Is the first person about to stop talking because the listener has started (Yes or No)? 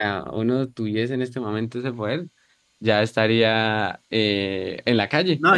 Yes